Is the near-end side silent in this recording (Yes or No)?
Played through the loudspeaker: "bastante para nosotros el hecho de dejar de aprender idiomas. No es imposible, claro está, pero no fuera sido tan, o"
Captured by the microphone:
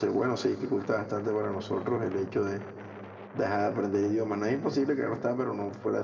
Yes